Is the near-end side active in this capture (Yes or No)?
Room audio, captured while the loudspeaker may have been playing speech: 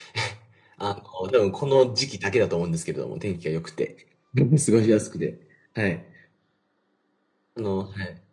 No